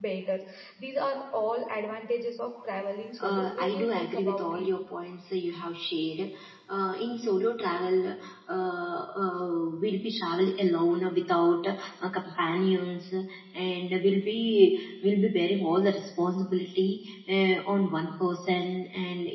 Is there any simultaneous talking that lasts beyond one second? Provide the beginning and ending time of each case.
3.2-4.7

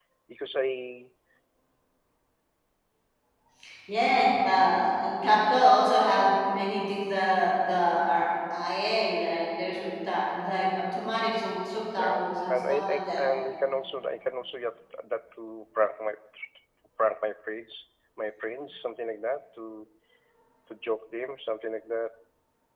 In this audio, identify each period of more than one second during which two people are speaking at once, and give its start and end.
12.0-13.2

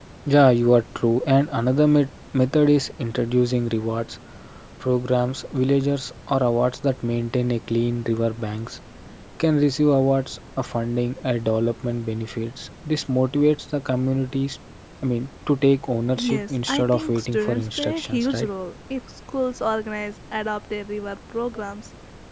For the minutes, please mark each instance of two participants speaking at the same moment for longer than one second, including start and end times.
16.2-18.5

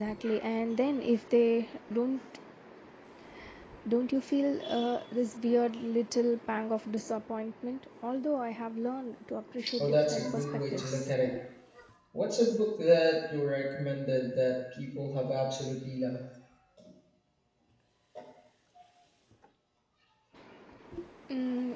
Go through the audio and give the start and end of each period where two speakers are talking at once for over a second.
9.8-11.1

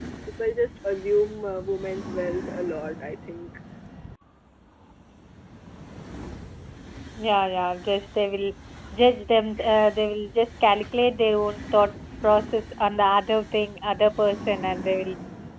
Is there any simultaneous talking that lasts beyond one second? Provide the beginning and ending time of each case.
none

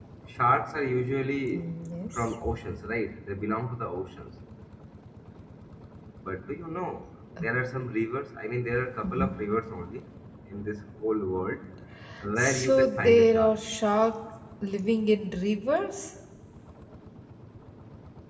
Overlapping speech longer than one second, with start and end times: 12.4-13.6

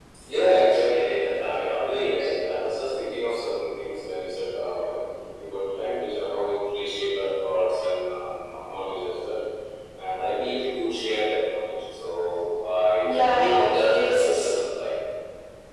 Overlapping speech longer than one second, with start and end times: 13.0-14.6

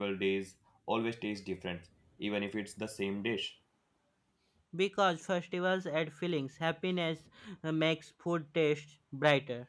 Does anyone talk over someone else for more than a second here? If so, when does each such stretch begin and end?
none

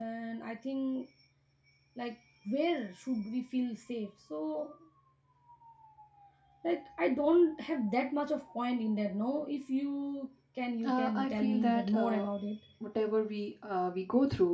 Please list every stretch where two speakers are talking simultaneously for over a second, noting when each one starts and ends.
10.8-12.2

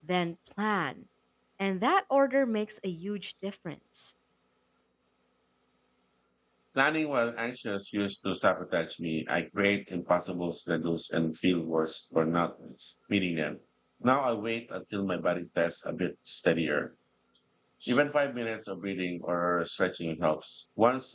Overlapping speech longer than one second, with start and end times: none

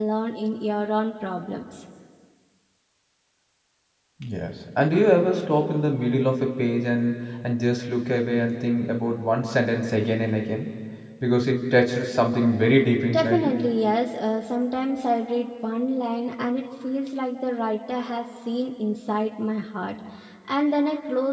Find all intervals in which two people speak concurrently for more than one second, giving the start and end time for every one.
none

